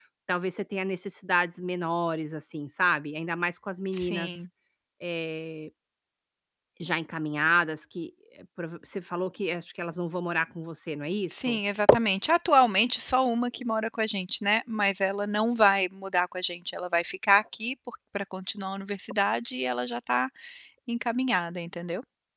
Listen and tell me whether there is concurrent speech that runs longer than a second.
No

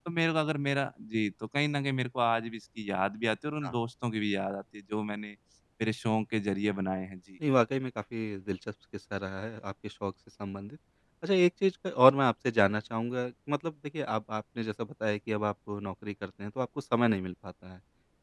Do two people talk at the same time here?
No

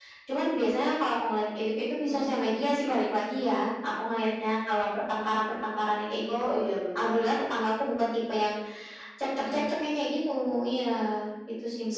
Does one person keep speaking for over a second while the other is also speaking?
No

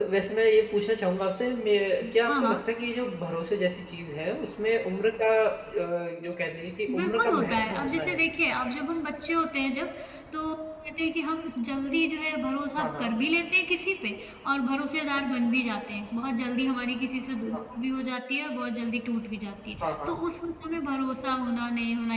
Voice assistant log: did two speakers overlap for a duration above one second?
Yes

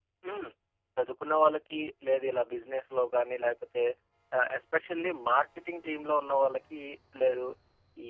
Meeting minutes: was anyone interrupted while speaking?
No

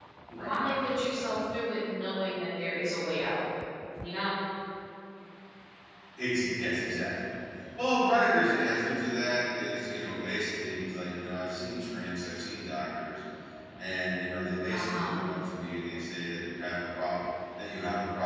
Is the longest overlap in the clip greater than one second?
No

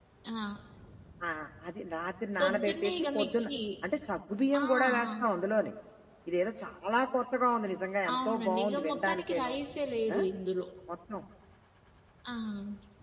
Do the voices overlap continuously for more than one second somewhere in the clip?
Yes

